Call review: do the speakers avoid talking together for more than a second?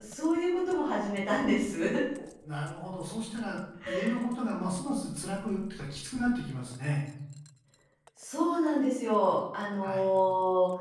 Yes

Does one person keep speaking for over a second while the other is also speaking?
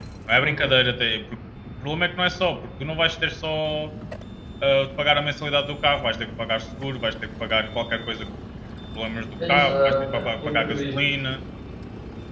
Yes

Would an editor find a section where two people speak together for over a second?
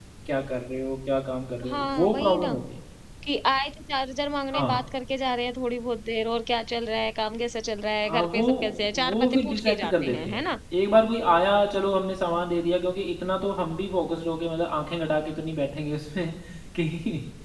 Yes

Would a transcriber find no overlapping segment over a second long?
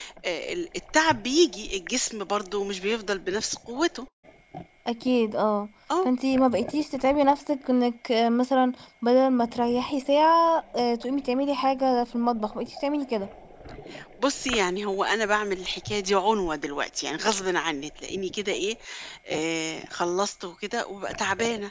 Yes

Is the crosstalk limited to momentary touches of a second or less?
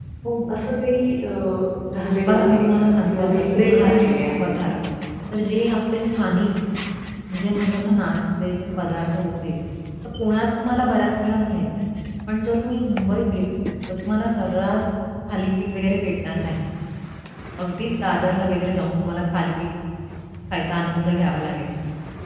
No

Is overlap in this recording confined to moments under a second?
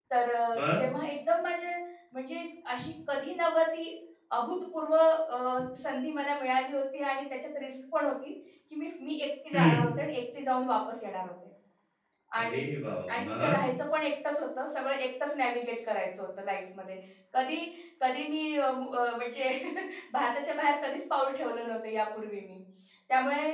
Yes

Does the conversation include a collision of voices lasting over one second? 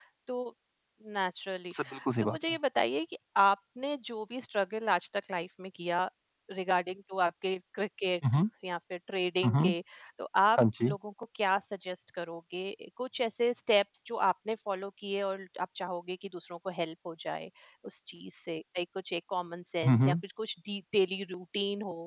No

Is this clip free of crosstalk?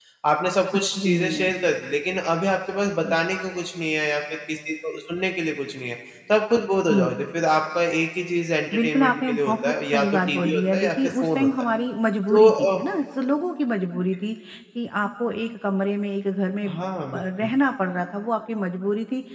No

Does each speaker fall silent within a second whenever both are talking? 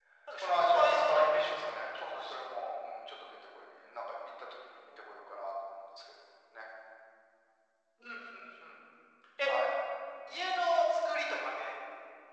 No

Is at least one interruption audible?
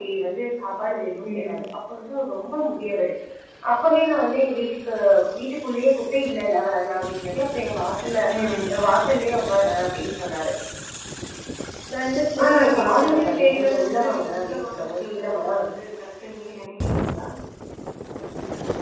Yes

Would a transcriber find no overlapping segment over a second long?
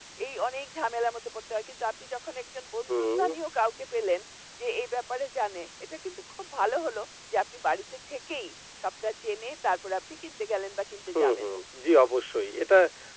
Yes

